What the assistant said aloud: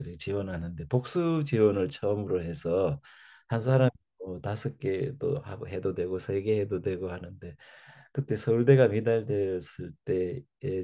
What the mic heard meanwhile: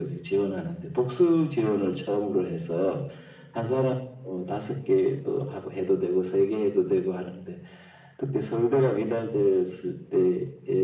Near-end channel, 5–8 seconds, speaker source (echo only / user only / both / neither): echo only